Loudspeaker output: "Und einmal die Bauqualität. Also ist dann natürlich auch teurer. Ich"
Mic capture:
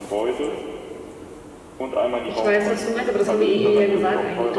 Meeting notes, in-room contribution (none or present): present